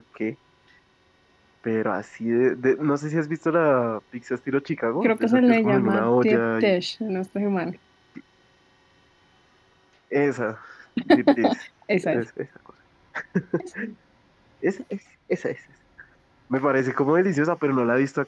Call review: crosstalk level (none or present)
present